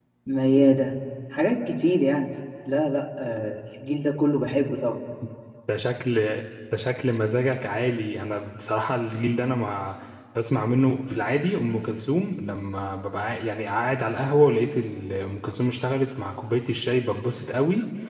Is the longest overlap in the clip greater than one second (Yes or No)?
No